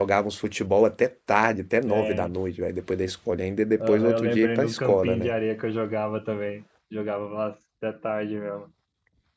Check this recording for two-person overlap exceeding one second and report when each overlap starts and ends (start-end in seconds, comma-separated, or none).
3.8-5.3